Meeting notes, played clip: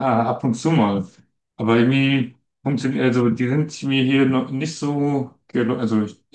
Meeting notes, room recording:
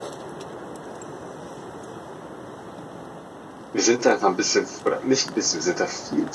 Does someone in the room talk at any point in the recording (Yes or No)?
Yes